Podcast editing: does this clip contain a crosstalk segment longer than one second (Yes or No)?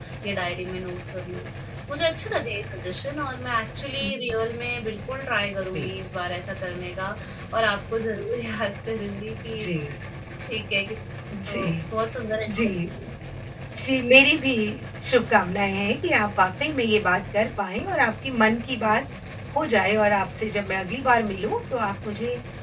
No